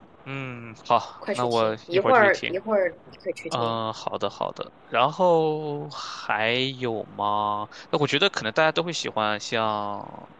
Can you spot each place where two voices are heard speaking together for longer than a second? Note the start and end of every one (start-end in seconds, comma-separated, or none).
1.3-2.5